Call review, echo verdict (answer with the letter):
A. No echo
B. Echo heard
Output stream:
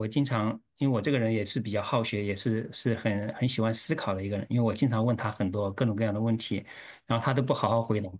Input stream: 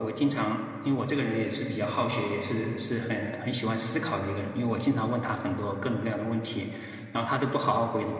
B